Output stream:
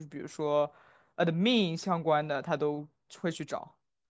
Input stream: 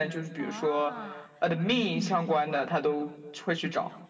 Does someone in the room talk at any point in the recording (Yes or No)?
Yes